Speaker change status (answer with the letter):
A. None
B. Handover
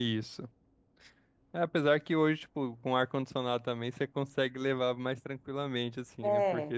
A